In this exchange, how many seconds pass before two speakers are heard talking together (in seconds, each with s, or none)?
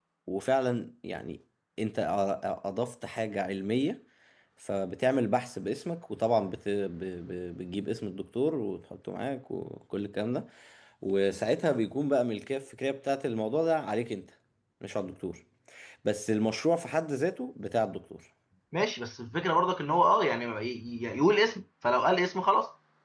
none